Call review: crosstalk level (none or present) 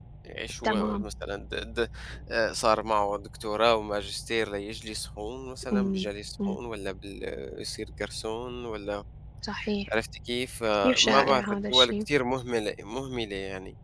present